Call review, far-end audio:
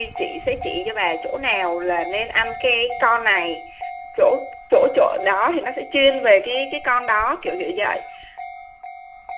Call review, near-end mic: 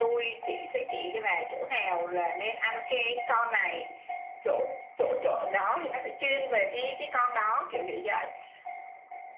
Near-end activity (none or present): none